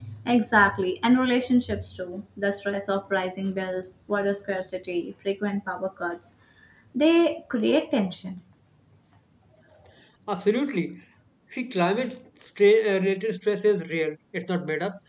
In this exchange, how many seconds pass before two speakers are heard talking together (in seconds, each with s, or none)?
none